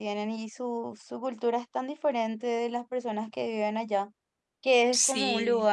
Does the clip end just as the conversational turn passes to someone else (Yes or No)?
No